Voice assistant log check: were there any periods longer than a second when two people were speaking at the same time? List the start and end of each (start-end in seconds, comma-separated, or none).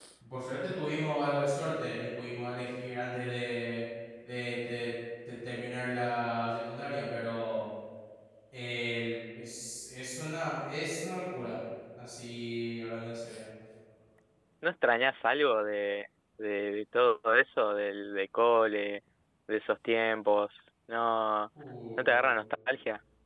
none